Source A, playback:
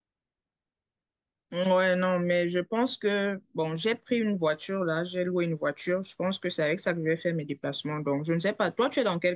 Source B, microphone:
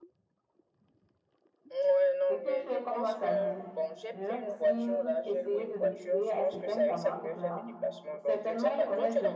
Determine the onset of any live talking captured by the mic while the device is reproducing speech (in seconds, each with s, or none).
2.3 s